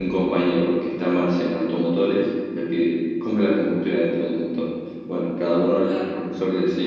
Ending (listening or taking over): listening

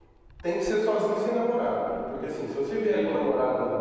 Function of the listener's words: listening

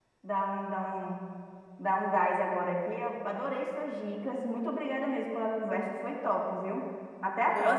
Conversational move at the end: taking over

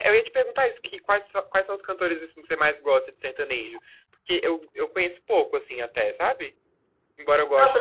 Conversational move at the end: taking over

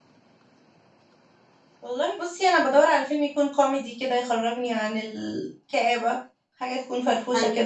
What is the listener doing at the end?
taking over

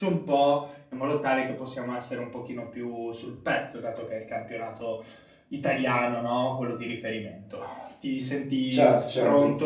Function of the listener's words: listening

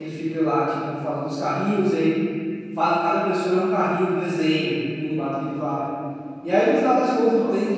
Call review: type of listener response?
listening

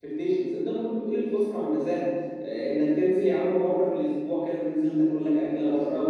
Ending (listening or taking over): listening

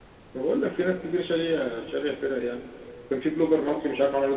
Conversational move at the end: listening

